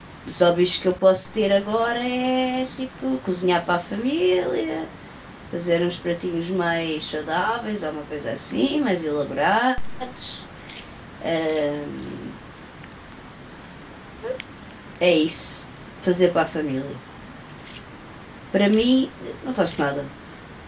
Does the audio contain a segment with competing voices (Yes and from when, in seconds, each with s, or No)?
No